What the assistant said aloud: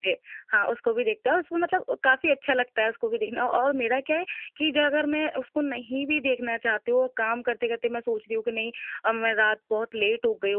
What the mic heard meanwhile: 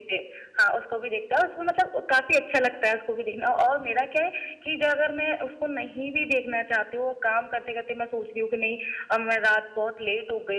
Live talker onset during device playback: none

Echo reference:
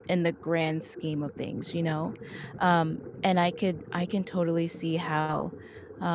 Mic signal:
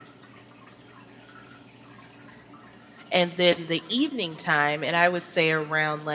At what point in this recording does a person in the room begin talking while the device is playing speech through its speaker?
3.1 s

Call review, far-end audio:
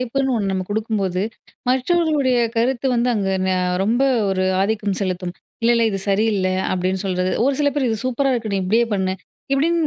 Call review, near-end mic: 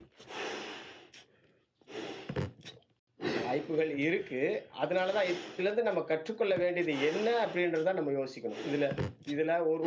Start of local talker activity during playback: 3.4 s

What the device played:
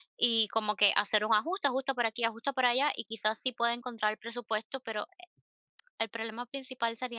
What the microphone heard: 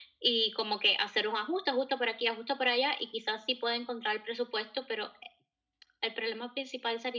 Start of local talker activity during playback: none

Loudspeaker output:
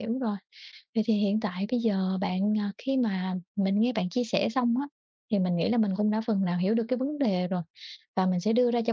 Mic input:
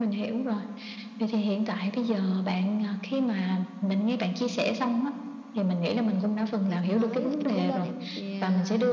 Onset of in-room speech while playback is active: 6.7 s

